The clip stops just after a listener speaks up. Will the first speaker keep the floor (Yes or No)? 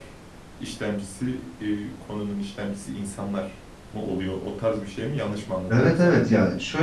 No